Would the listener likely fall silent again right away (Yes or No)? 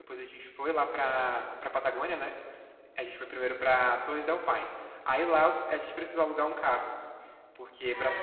Yes